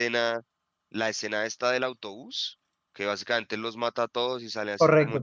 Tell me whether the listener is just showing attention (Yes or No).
Yes